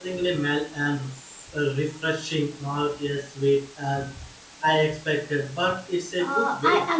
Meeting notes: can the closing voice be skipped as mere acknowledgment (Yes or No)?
No